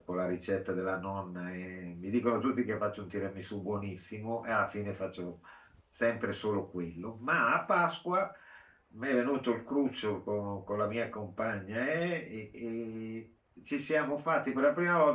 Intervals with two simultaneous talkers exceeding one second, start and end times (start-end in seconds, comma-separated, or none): none